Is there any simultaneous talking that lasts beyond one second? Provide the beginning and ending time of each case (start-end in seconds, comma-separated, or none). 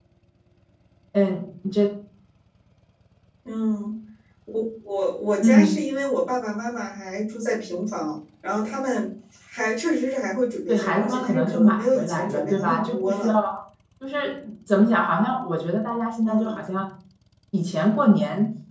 10.7-13.4